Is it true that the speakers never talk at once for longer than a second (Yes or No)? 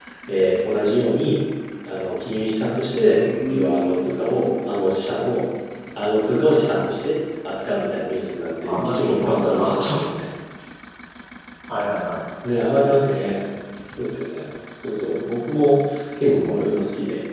No